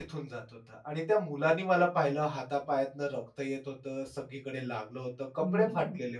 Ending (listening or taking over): taking over